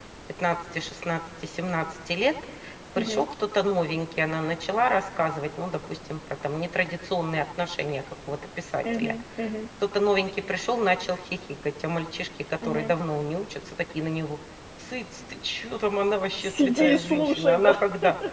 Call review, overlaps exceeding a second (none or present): present